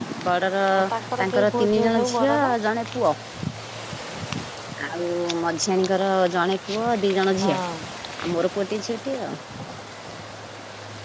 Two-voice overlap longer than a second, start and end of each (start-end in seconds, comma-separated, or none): 1.2-2.5